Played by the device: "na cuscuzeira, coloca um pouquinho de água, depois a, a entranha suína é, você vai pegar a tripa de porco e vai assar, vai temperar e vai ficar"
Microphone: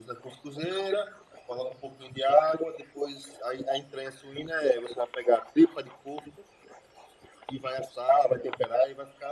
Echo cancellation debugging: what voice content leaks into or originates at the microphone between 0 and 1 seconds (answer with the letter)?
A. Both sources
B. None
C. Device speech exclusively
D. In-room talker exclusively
C